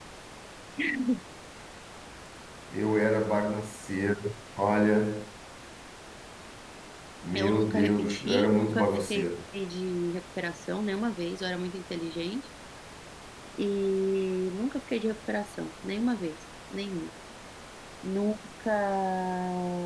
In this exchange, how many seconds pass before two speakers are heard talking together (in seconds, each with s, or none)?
7.4 s